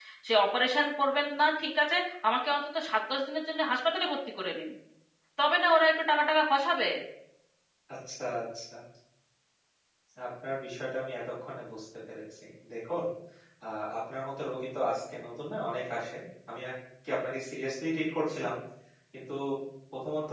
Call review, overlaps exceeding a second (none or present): none